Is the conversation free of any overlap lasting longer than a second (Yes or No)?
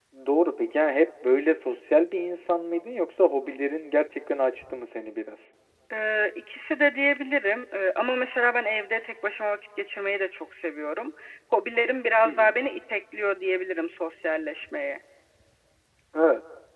Yes